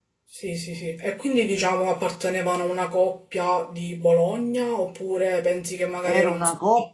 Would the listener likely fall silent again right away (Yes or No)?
No